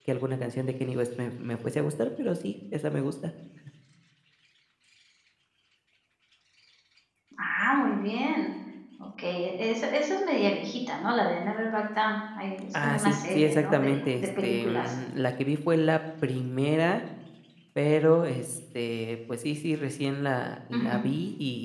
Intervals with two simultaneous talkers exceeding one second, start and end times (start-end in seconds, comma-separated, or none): 12.7-14.9